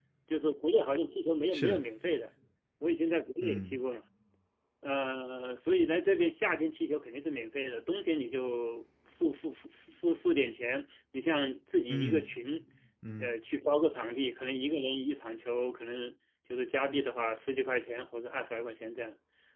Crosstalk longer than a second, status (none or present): none